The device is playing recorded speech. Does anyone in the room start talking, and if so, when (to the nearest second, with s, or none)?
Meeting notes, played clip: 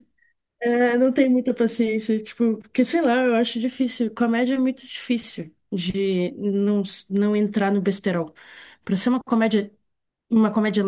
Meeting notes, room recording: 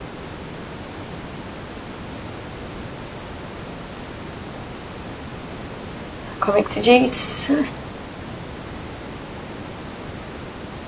6 s